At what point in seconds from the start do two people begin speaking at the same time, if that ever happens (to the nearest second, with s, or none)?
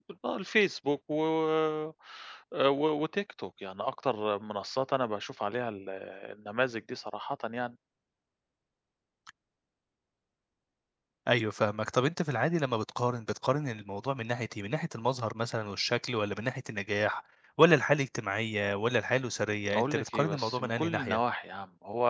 20 s